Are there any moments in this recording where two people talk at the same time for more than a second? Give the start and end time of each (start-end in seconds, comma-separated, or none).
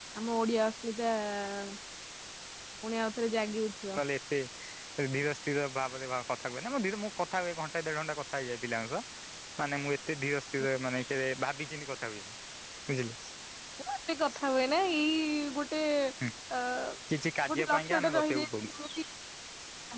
17.5-18.8